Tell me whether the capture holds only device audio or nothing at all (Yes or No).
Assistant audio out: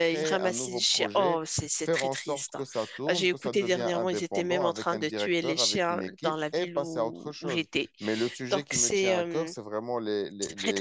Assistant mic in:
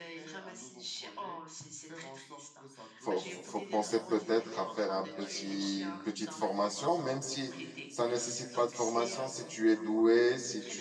No